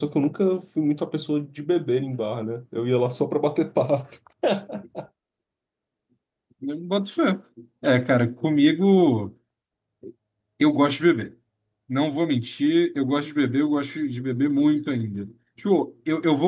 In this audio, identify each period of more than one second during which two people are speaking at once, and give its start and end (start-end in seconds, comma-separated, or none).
none